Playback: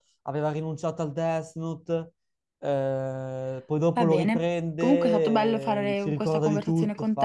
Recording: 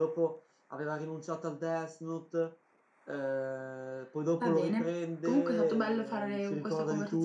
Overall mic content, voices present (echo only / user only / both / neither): echo only